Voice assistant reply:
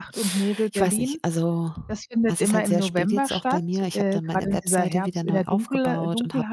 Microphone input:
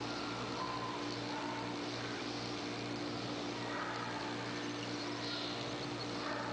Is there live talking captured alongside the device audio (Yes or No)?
No